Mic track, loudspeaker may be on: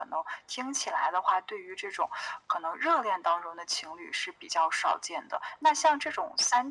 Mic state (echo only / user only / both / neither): echo only